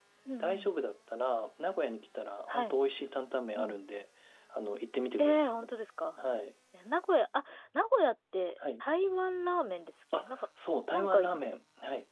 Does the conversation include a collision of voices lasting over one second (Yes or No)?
No